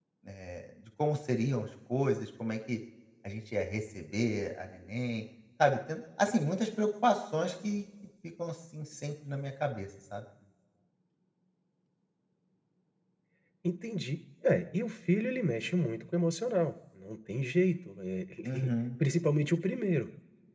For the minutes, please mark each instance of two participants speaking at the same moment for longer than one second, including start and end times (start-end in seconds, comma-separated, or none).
none